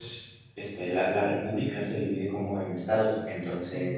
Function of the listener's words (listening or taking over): listening